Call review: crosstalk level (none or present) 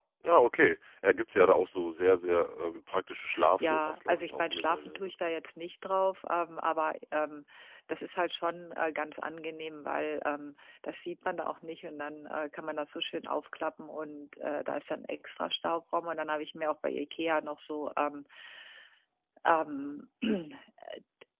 present